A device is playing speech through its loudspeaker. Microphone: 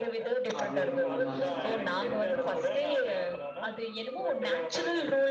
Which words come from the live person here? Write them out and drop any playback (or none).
அது இதுன்னு எதாச்சு ஆயிரு அதுதா